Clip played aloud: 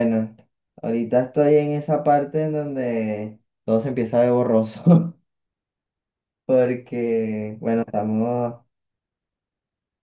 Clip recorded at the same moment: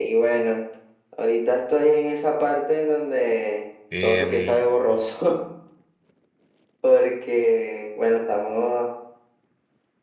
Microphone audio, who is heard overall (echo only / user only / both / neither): both